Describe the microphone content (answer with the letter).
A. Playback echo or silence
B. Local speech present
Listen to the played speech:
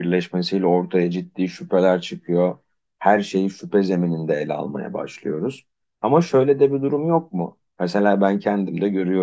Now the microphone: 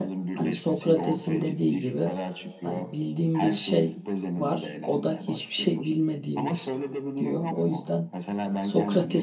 B